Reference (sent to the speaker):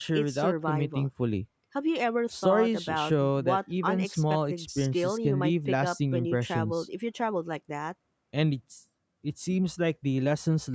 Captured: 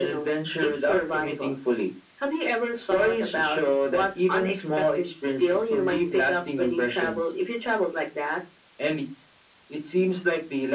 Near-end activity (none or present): none